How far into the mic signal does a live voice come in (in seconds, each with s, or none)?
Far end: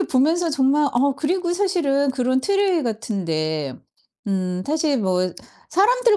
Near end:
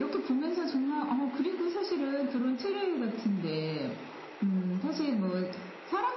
none